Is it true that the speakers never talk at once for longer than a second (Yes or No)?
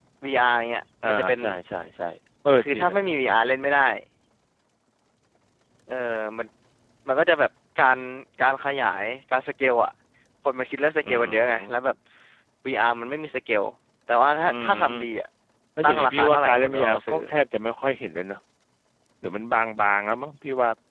No